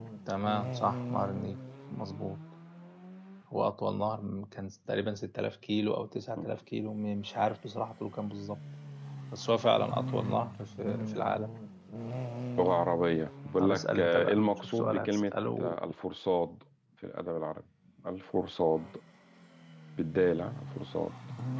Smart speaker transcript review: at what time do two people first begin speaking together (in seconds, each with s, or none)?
13.6 s